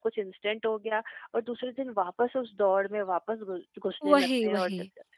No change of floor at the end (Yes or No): Yes